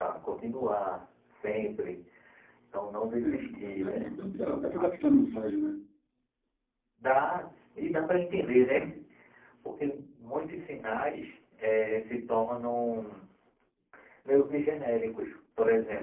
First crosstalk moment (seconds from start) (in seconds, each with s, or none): 3.2 s